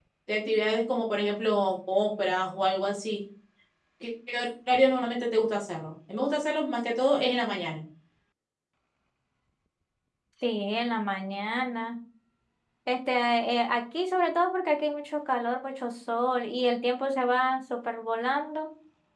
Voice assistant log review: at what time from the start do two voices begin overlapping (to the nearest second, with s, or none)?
none